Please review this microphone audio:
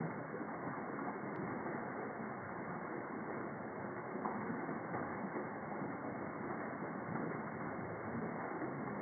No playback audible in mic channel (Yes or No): Yes